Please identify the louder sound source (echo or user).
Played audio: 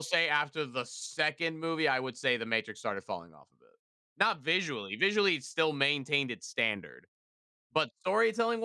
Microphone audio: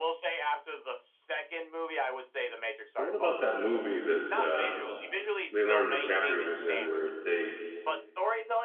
user